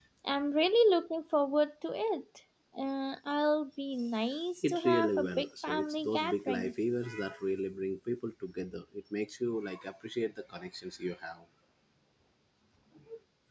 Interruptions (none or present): present